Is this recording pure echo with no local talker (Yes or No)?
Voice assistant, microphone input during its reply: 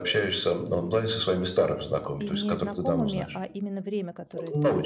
No